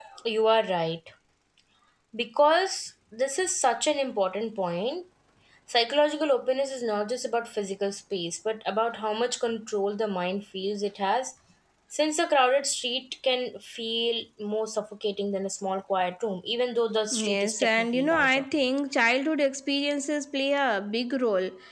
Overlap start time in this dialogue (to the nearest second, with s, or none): 17 s